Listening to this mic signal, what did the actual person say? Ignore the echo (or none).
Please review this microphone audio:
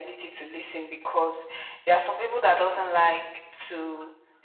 none